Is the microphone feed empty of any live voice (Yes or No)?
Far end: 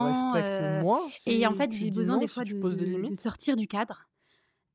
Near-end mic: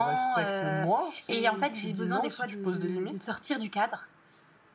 Yes